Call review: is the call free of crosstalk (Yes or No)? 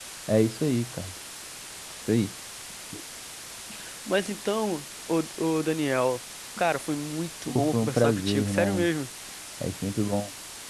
No